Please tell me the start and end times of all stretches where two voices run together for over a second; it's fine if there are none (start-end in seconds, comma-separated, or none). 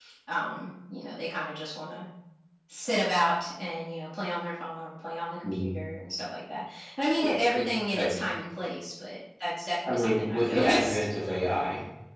9.9-11.1